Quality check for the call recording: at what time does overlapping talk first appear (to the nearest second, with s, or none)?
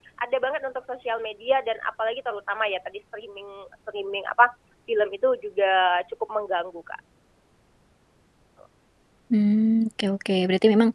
none